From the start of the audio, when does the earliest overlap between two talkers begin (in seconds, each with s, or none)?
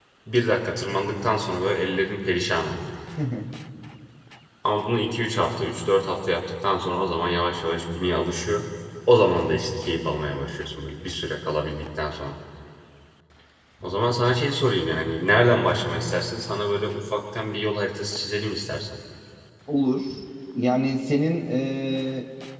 none